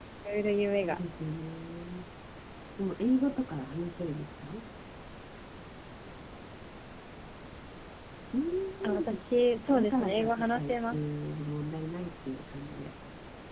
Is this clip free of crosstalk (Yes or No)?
No